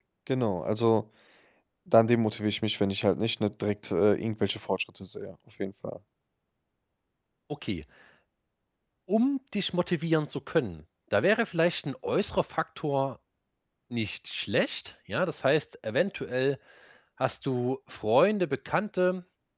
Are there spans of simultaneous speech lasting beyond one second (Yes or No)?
No